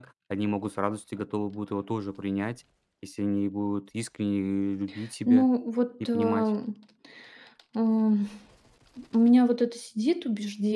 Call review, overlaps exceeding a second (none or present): none